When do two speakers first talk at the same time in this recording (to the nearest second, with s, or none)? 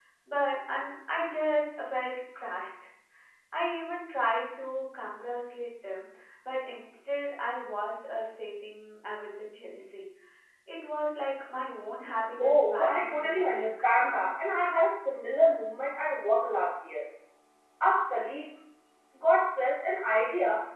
12 s